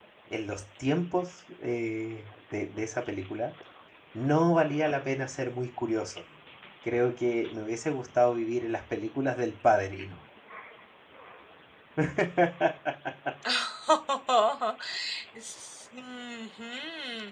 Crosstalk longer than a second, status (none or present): none